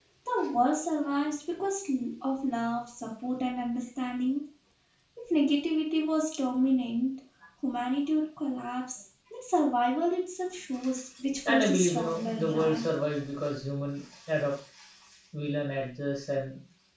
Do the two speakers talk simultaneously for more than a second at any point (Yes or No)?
Yes